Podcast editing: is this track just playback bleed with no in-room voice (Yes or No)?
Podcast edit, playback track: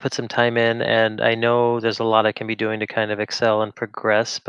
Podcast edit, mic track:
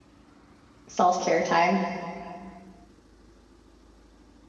No